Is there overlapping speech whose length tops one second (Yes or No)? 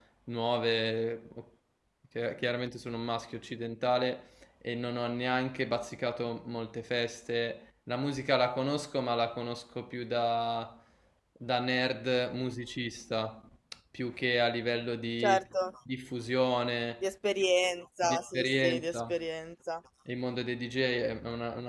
Yes